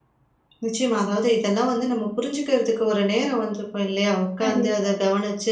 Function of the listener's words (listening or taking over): listening